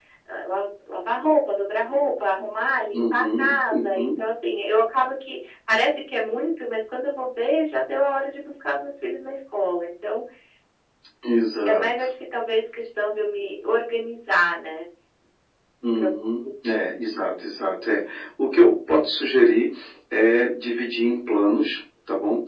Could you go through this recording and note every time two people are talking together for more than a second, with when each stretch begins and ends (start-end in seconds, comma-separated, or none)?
2.9-4.2